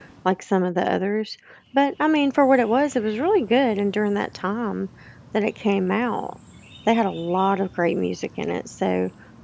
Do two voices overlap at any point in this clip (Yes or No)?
No